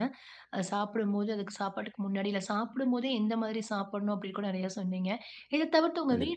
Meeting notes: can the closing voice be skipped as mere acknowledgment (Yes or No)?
Yes